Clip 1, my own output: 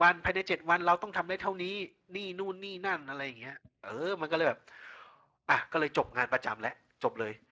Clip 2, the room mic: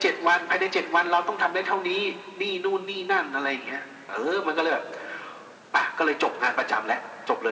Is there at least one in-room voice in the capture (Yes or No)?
No